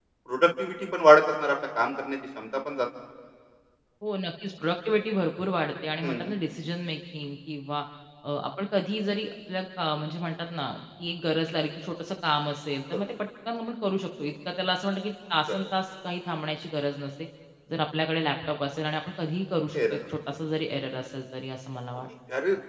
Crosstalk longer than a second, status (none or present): none